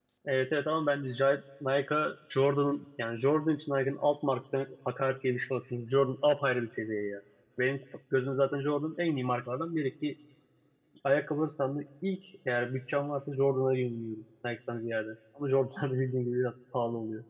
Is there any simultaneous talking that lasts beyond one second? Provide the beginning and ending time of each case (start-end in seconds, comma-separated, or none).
none